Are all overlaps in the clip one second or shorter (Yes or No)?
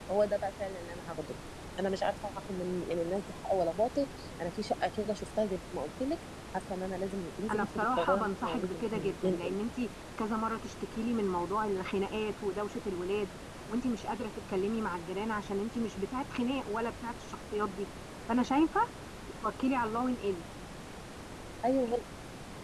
No